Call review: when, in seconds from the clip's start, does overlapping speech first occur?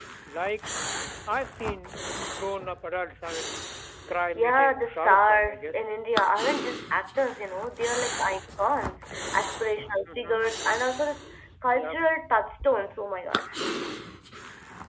4.3 s

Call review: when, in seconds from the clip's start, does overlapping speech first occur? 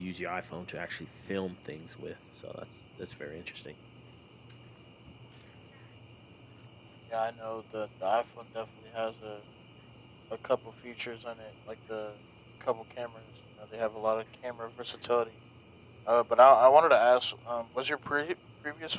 none

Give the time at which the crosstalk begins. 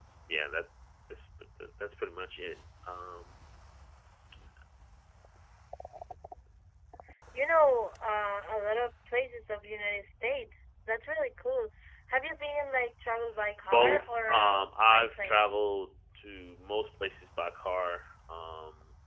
13.6 s

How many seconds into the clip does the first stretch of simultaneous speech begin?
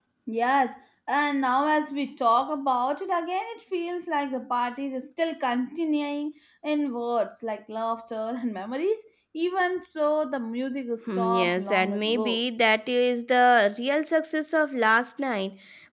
11.1 s

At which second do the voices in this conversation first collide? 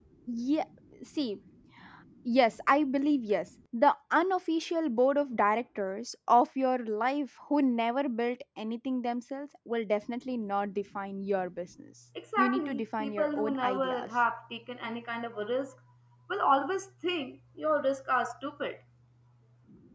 12.2 s

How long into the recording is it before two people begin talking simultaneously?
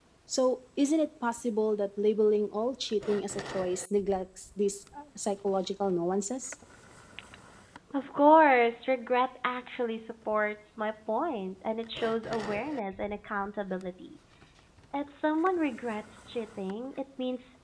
none

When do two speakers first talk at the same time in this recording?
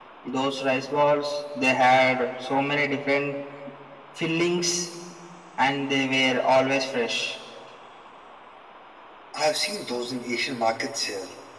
none

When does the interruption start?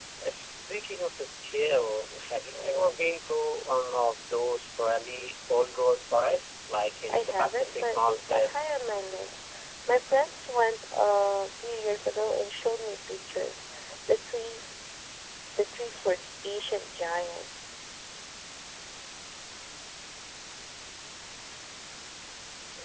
7.1 s

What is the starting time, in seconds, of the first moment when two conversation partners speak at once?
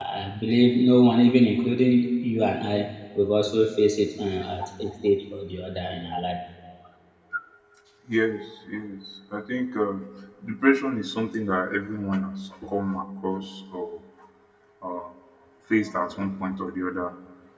none

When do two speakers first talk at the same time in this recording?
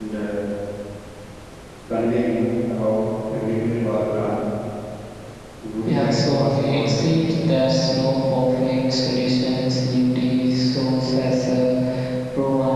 5.8 s

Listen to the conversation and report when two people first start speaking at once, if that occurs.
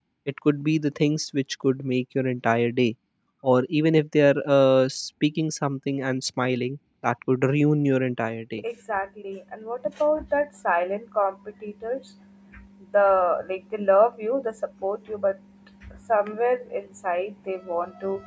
none

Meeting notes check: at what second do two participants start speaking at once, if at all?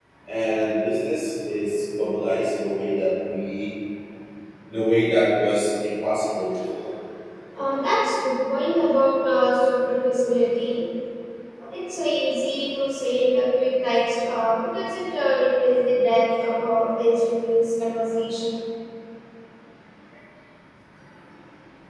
none

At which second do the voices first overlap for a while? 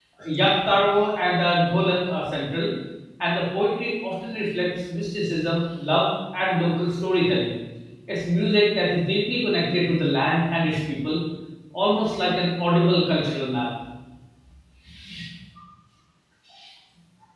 none

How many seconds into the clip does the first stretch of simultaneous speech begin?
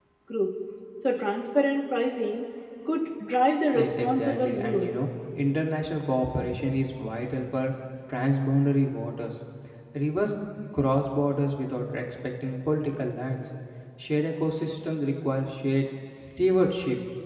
3.7 s

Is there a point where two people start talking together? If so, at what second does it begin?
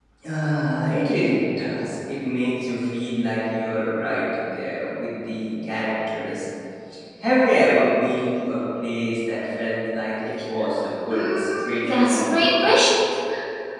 11.1 s

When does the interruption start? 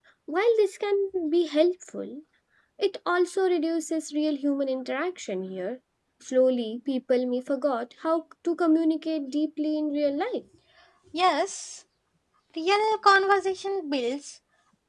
none

